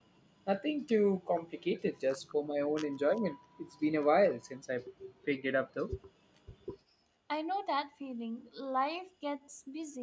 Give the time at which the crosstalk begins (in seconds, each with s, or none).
none